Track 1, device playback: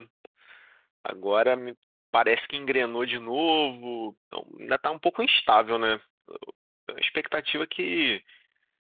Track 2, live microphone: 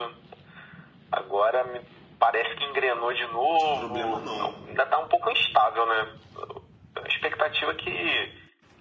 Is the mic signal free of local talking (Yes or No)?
No